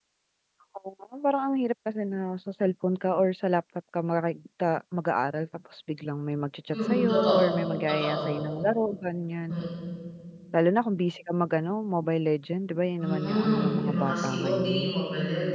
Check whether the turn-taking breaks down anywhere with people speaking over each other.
Yes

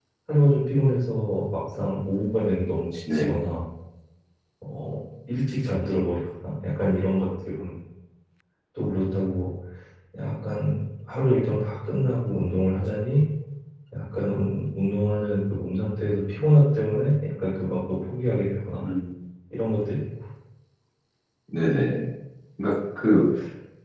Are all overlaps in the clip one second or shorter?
Yes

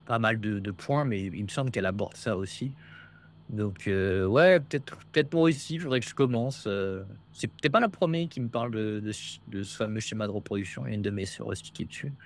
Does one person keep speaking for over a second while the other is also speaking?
No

